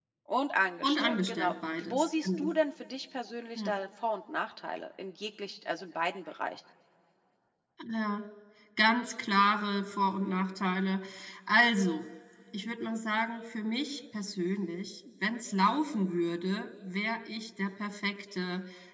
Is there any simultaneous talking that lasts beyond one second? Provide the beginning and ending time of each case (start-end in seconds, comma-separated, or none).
0.8-2.5